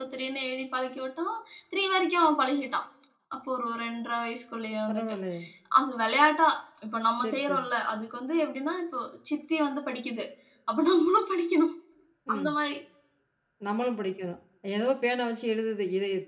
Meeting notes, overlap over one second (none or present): none